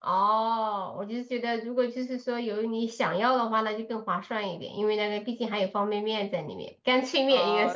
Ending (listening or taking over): taking over